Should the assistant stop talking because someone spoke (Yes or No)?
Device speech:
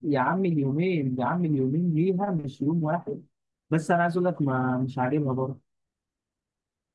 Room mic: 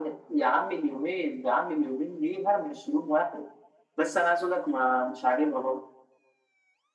No